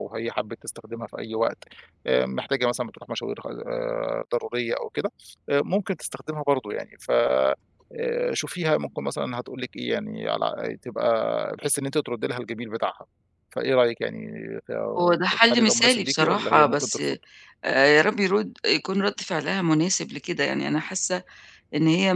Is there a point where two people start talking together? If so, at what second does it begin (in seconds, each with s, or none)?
15.0 s